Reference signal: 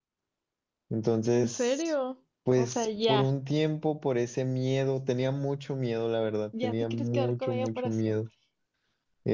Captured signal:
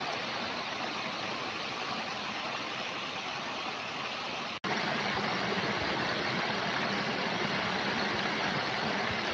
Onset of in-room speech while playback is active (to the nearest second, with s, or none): none